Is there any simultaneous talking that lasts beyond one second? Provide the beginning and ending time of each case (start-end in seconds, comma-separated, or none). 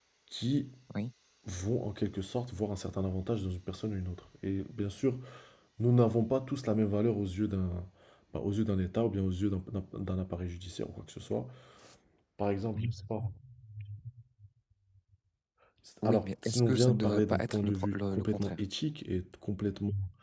16.1-18.6